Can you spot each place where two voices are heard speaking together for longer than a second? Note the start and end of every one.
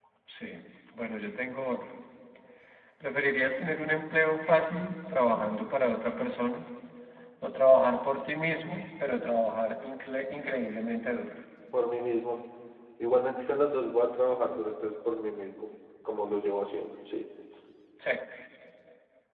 none

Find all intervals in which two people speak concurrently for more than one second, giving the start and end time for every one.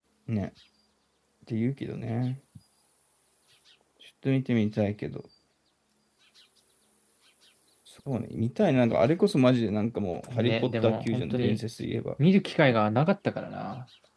10.3-11.6

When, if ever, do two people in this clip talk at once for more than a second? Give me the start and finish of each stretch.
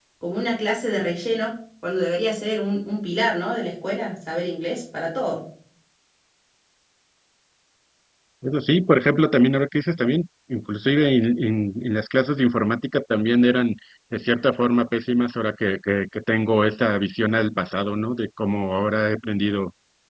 none

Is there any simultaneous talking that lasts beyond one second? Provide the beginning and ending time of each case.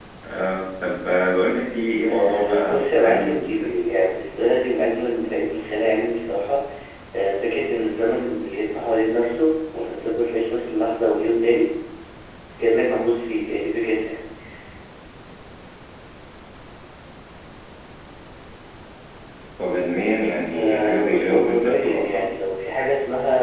2.1-3.7, 20.6-22.2

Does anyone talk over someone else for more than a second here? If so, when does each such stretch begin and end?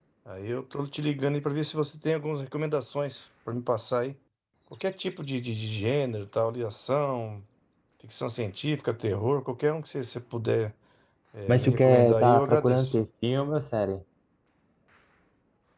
11.5-12.9

